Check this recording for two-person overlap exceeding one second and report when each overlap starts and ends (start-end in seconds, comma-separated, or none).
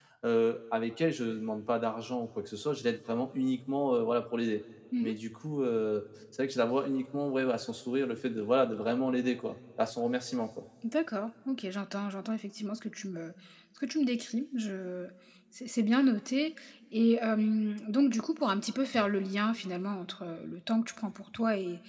none